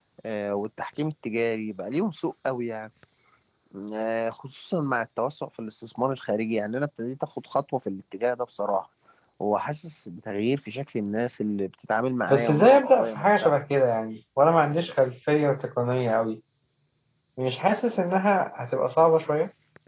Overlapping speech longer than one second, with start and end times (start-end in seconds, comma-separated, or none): 12.3-13.5